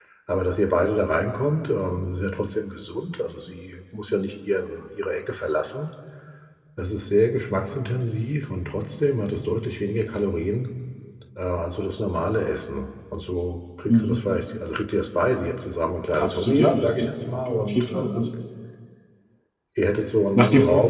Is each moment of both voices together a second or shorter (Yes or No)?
No